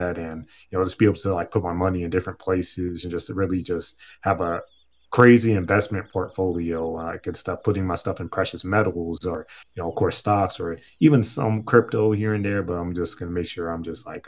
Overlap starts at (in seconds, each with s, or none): none